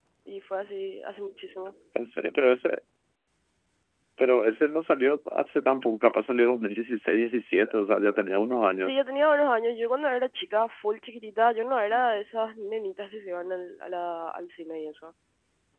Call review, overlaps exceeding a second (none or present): none